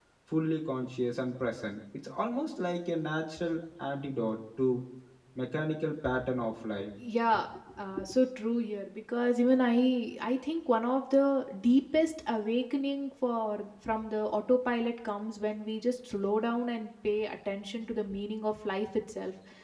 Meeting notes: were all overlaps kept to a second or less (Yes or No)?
Yes